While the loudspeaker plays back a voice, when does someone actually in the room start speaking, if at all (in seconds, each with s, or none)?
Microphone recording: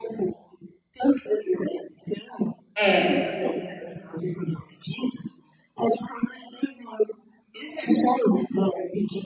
2.8 s